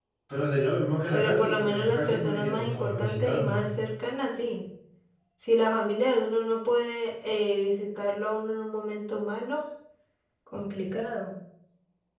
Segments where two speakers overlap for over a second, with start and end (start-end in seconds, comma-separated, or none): 1.1-3.6